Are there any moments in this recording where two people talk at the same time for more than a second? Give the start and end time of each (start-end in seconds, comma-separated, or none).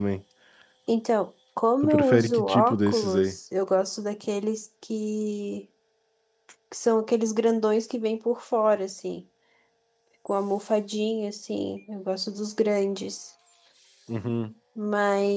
1.8-3.4